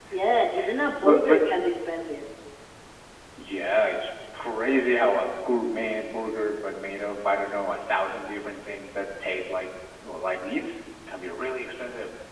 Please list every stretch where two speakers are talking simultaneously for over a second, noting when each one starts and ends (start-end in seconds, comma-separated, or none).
none